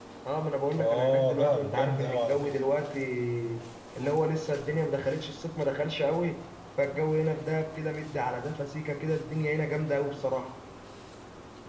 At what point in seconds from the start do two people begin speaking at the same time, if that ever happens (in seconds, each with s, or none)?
0.8 s